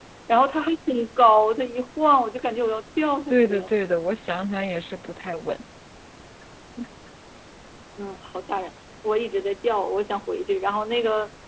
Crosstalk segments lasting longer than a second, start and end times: none

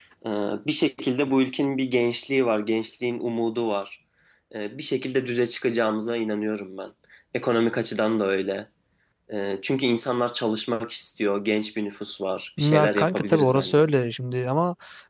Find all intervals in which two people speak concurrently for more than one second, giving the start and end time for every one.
12.6-13.8

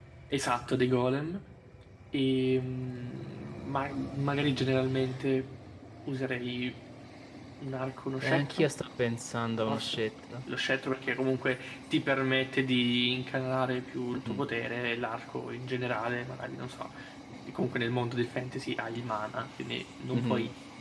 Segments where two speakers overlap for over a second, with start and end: none

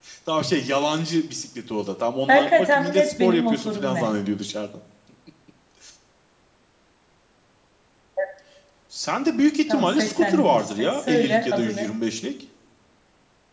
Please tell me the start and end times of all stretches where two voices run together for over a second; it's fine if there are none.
2.3-4.1, 9.7-11.9

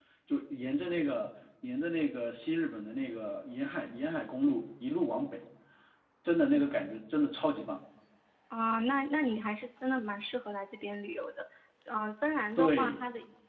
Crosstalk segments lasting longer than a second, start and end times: none

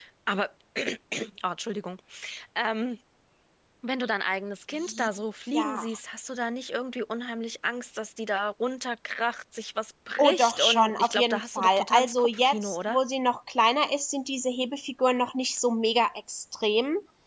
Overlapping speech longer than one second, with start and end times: 10.2-13.0

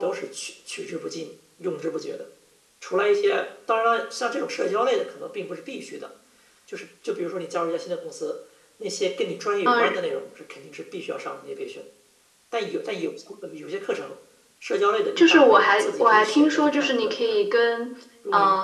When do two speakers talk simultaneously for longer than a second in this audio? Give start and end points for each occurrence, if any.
15.2-17.4

